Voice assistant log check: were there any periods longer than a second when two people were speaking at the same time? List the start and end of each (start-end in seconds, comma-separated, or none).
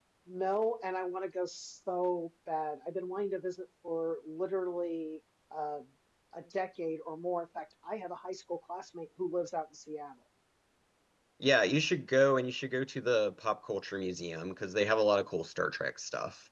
none